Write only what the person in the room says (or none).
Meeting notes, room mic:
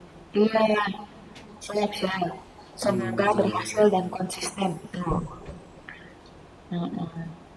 Hmm, betul.